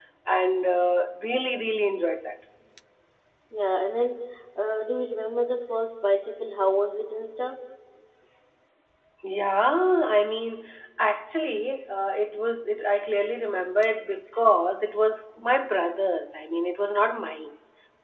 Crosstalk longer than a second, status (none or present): none